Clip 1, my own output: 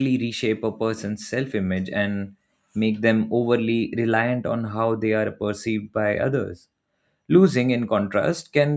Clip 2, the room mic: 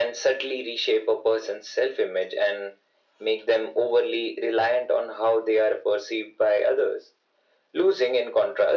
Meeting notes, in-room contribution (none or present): none